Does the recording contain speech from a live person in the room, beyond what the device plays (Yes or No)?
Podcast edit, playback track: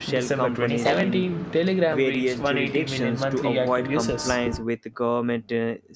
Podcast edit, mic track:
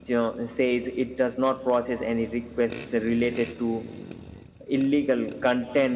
Yes